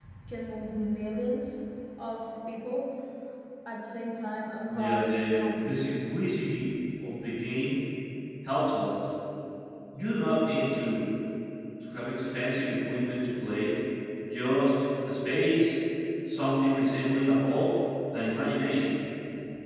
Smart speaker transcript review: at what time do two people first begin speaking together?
4.7 s

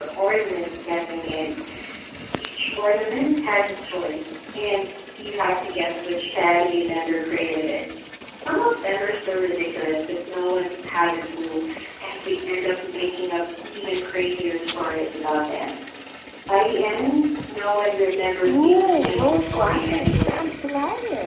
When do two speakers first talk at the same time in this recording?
18.4 s

